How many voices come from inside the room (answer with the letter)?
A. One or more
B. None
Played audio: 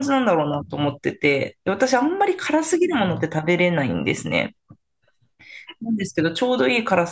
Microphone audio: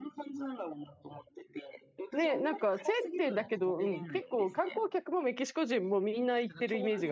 A